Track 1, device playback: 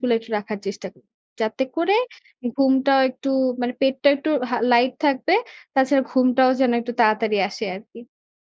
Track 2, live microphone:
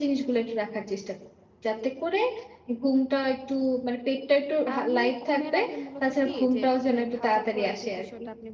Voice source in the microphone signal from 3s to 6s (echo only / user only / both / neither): both